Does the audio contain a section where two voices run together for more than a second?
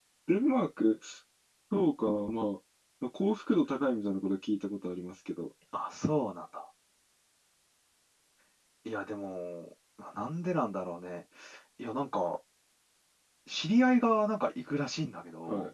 No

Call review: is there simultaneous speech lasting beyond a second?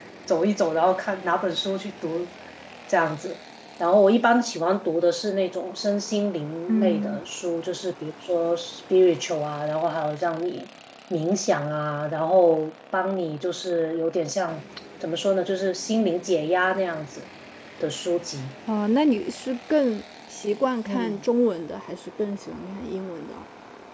No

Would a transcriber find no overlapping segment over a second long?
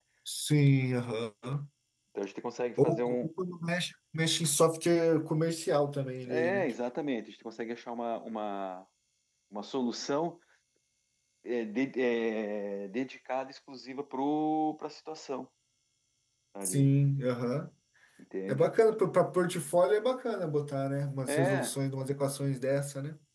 Yes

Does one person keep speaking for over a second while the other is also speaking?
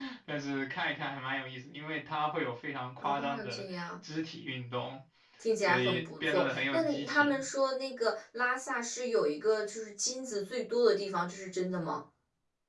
Yes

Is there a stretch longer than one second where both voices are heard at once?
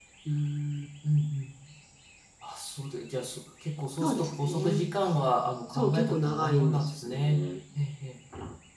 Yes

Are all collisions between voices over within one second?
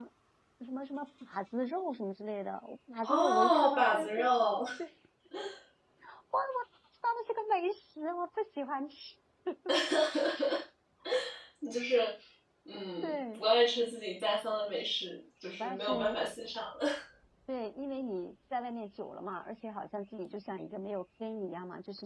No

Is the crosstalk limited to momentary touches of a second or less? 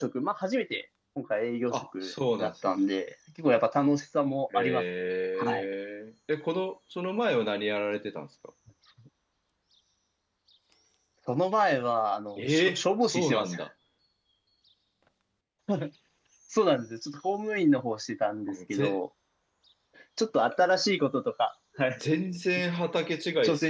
No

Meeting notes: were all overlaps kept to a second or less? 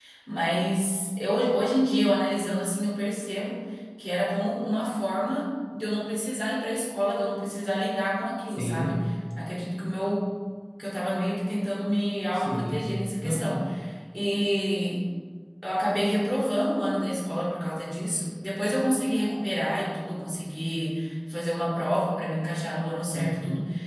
Yes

